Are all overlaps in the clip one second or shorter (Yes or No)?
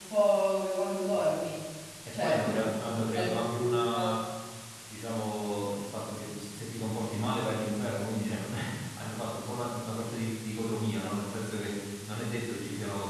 No